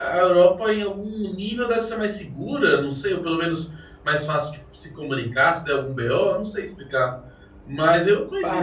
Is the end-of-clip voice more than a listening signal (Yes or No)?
Yes